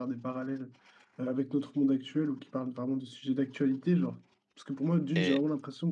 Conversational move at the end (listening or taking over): listening